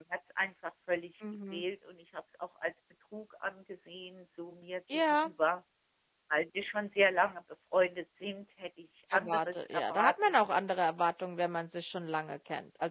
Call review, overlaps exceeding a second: present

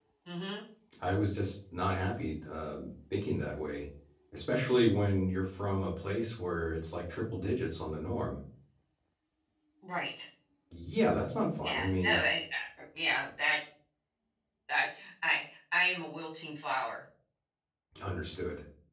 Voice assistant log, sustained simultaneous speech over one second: none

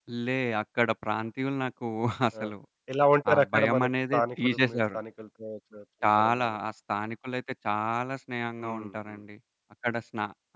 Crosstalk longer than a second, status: present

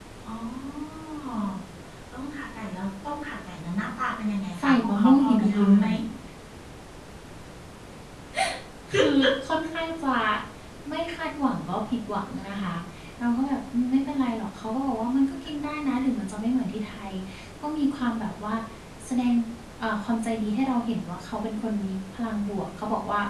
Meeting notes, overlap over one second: present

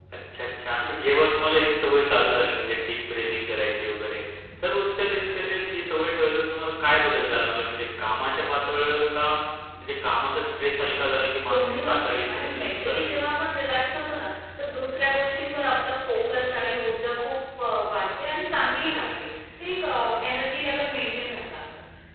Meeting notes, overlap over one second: present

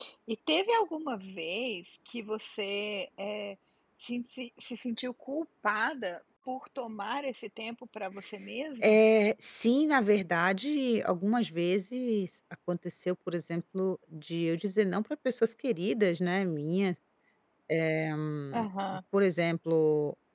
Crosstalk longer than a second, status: none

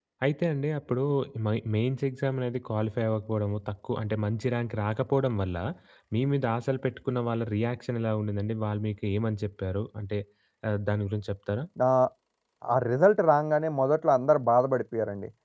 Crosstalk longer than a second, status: none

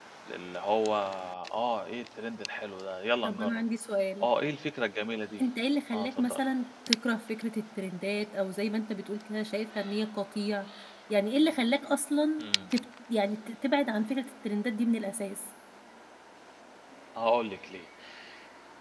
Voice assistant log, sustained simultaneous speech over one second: none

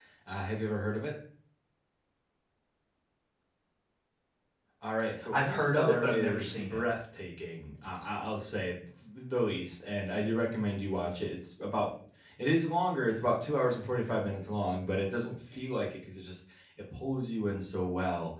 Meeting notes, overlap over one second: present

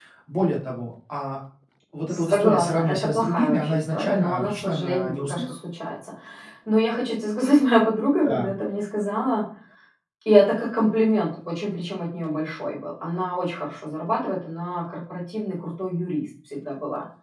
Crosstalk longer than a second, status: present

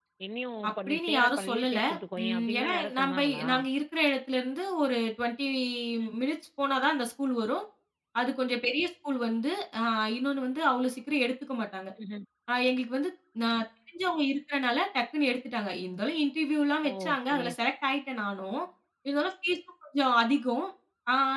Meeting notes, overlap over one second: present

